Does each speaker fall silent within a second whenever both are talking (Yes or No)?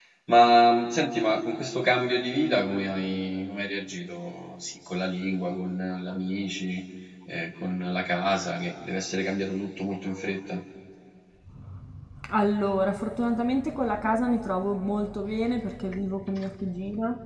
Yes